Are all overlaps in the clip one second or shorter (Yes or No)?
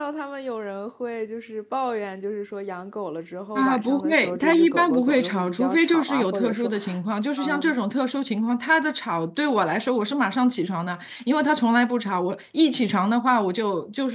No